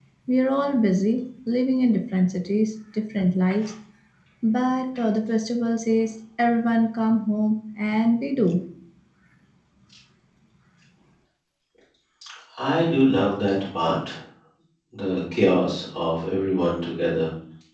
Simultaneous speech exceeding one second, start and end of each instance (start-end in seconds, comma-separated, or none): none